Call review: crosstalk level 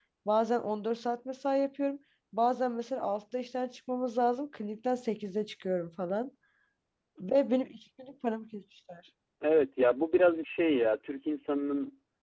none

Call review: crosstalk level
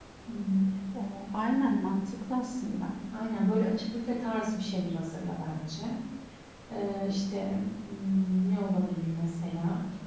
none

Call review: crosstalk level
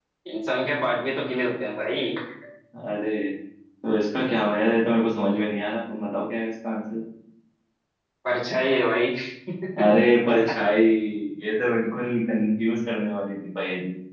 none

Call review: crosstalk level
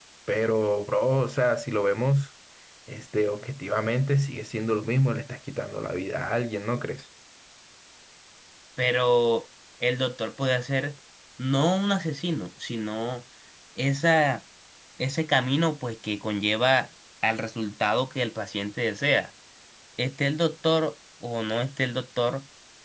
none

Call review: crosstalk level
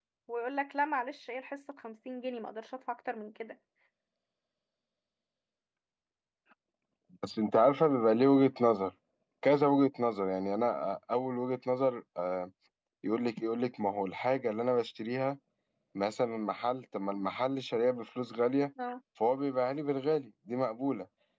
none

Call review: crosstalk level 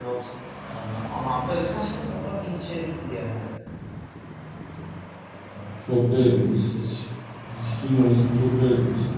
none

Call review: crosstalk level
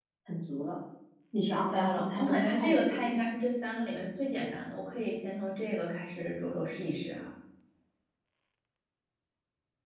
present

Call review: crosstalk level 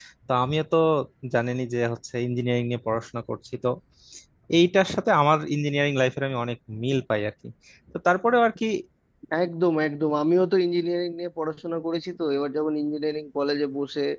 none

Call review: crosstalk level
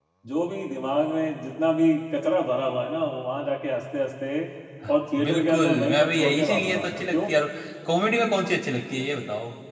present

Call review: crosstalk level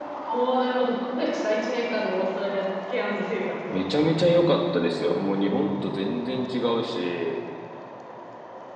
none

